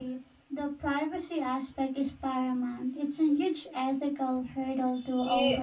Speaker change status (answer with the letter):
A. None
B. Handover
B